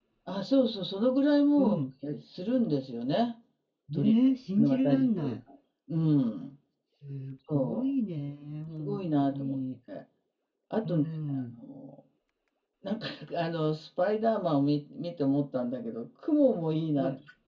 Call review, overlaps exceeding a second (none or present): present